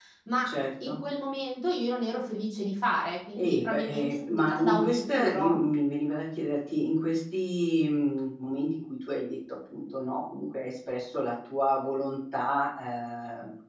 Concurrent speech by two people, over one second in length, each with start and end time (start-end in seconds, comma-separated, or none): 3.4-5.6